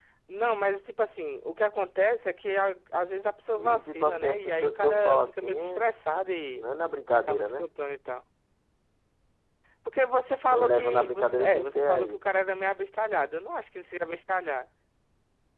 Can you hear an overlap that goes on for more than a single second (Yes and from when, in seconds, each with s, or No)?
Yes, from 3.5 s